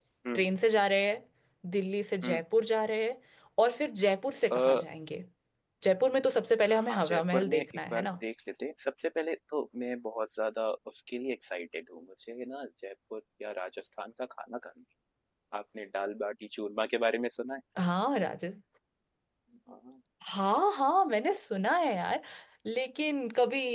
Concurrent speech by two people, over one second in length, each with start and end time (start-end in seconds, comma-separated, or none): 6.7-8.1